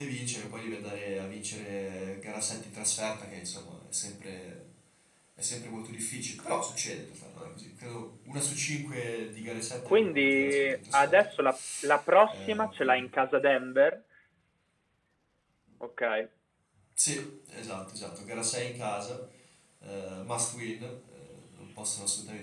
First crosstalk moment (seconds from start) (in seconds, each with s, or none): 9.8 s